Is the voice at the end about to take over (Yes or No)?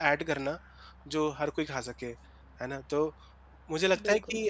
No